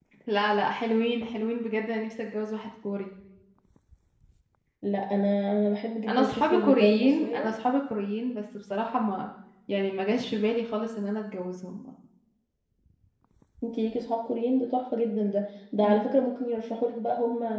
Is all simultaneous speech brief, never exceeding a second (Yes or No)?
No